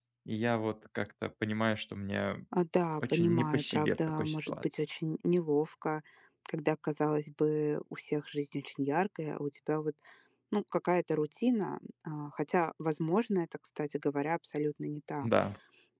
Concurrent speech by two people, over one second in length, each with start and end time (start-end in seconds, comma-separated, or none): 3.1-4.6